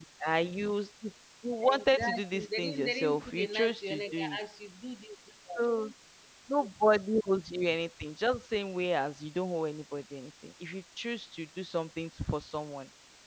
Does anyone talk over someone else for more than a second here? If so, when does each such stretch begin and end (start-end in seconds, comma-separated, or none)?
1.6-4.4